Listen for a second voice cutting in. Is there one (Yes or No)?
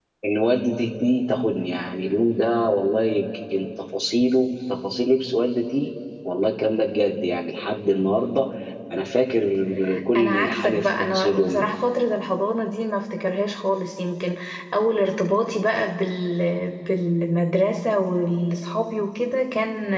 Yes